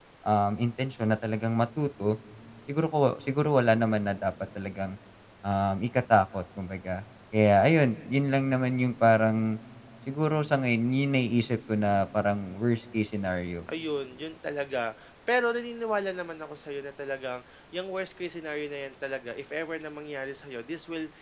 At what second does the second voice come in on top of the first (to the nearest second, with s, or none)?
none